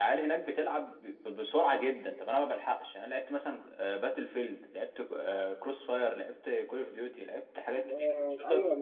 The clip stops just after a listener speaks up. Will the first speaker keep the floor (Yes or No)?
No